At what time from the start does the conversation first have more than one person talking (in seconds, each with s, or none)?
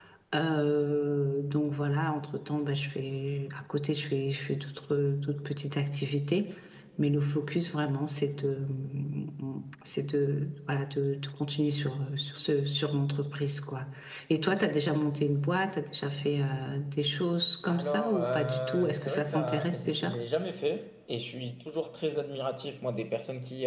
17.7 s